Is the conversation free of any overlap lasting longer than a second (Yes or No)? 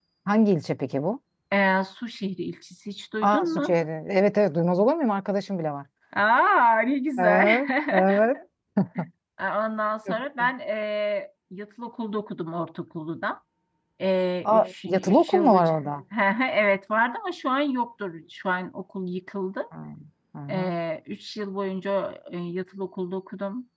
No